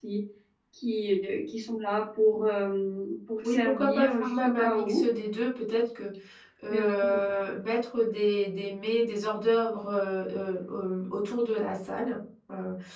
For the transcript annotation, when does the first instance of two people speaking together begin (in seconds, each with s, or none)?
3.4 s